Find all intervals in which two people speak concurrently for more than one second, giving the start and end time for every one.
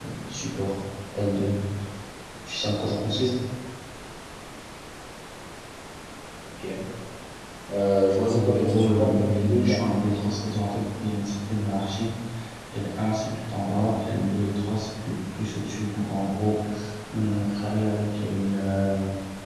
8.2-9.8

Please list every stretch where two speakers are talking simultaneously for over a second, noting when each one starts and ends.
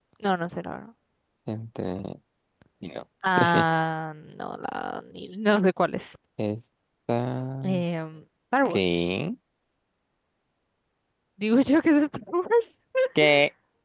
none

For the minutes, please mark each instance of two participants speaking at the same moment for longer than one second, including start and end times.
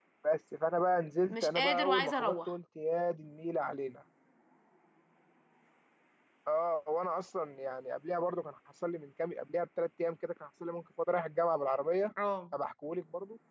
1.3-2.5

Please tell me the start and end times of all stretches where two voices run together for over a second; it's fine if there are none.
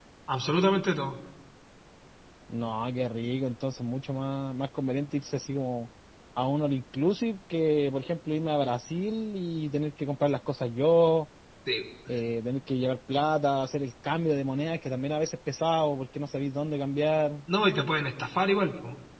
none

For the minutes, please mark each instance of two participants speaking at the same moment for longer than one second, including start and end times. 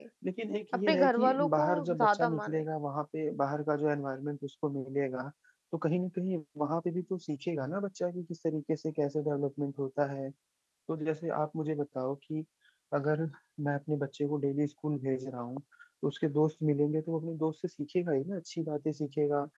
0.9-2.6

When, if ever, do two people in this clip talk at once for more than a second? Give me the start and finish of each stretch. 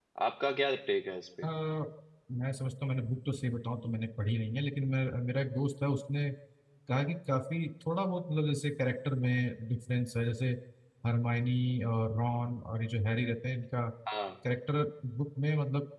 none

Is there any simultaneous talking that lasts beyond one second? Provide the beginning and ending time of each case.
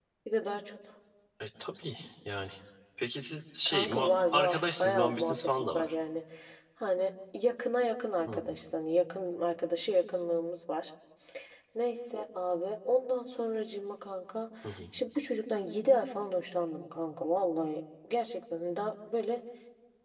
3.6-5.9

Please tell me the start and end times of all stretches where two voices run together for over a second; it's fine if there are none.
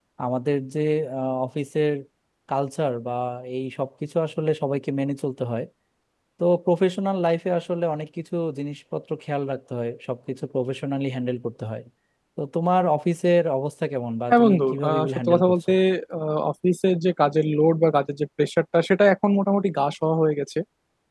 14.3-15.7

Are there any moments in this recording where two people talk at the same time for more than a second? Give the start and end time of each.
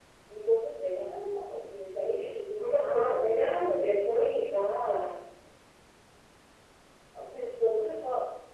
2.6-4.3

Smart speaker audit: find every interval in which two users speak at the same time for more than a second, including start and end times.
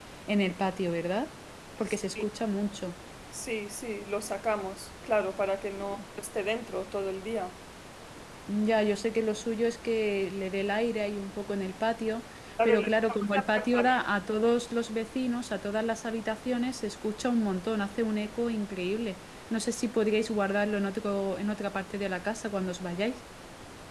12.6-14.0

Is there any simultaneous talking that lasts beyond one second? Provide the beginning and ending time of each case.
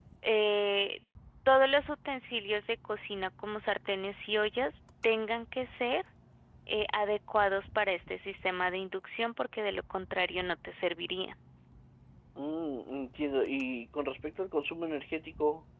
none

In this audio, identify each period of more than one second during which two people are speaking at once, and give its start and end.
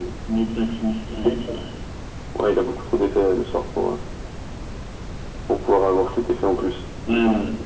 none

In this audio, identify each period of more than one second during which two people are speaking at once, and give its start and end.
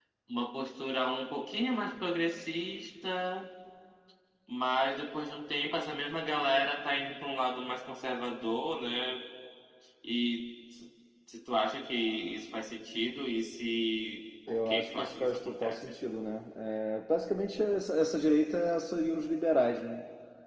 14.5-15.9

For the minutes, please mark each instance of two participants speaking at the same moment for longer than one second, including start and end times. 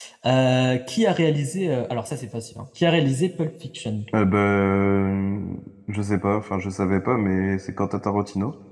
none

